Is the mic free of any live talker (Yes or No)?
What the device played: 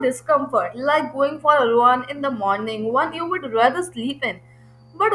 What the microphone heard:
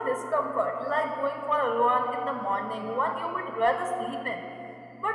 Yes